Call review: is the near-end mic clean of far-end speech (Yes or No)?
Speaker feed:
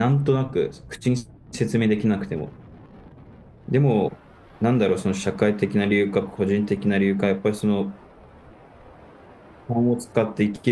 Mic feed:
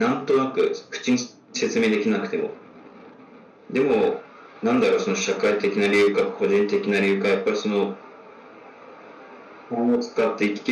No